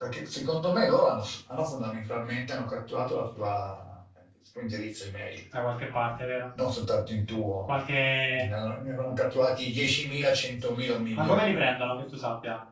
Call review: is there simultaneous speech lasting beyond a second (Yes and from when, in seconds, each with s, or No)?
No